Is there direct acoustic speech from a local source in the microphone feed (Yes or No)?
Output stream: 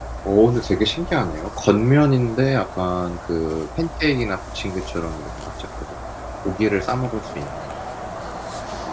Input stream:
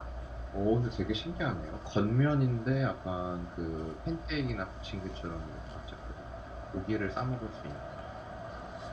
No